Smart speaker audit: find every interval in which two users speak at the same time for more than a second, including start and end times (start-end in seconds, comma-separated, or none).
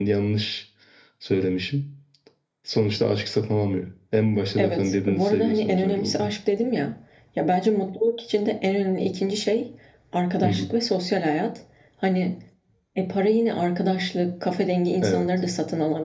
4.6-6.3